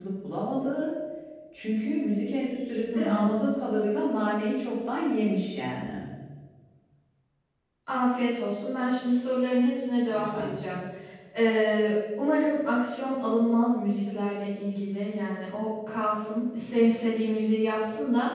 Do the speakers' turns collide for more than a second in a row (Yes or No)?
No